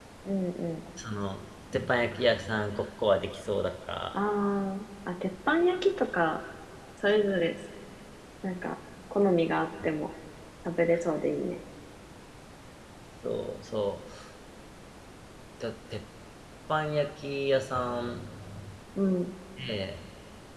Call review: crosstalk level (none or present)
none